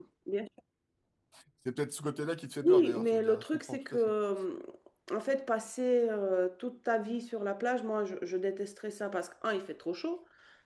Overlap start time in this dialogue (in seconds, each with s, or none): 2.6 s